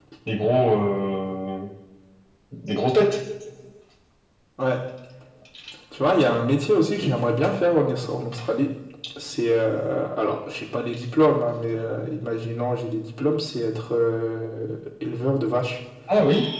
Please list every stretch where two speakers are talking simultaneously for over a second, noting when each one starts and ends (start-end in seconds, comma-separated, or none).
none